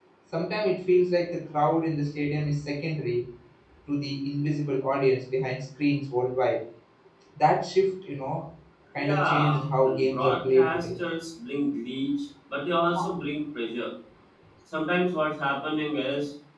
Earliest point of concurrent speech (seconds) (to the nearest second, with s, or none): 9 s